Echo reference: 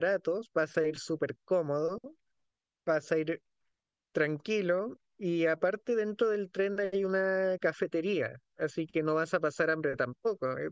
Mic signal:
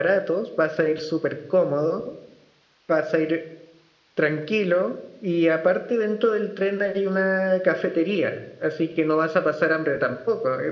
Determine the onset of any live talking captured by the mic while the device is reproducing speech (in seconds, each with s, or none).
none